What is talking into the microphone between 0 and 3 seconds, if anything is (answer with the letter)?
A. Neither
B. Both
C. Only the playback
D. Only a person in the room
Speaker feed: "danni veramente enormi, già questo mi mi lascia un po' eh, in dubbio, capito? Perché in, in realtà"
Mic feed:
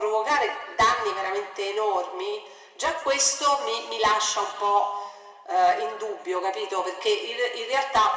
C